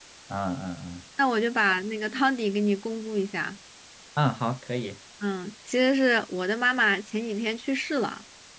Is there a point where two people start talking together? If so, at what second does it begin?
none

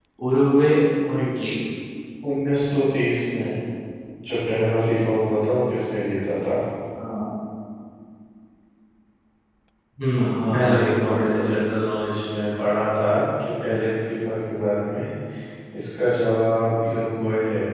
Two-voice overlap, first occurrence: 10 s

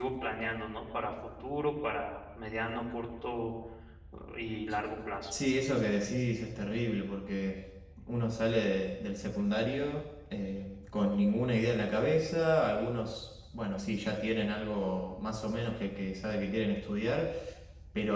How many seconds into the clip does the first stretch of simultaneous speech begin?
none

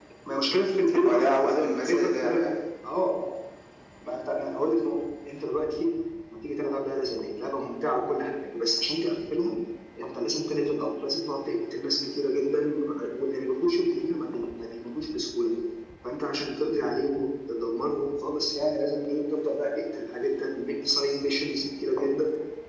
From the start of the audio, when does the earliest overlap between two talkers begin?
1 s

